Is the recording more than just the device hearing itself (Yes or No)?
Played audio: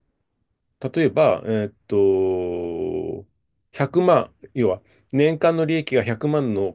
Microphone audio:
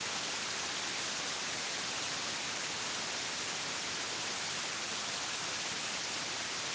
No